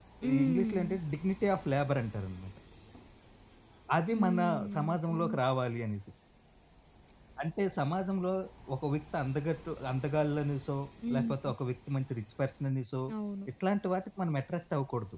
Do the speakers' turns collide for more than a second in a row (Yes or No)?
Yes